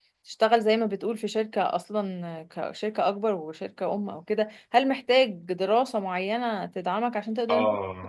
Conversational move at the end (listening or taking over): taking over